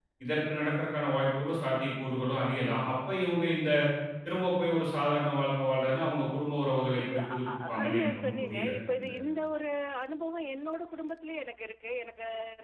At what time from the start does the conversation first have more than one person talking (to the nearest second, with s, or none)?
7 s